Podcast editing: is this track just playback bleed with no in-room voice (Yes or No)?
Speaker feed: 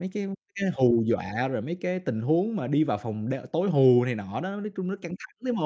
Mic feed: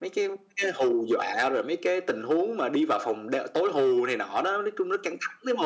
Yes